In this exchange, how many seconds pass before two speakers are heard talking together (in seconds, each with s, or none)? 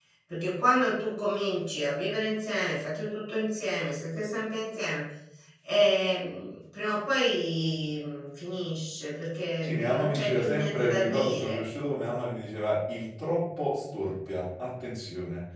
9.6 s